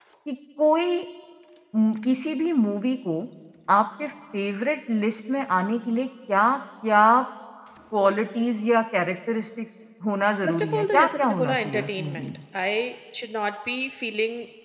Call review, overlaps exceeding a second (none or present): present